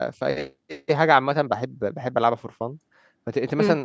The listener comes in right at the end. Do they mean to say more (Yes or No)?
No